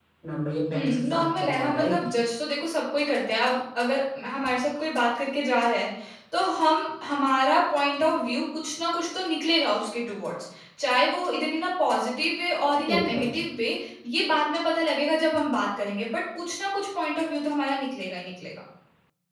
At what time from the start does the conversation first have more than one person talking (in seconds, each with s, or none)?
0.7 s